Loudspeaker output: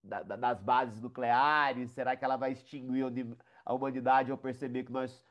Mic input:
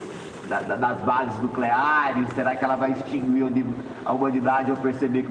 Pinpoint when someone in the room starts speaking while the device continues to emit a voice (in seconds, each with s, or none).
none